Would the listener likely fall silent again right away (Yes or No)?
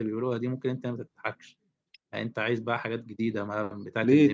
No